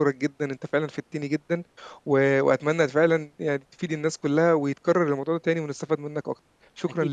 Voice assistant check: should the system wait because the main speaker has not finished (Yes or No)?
No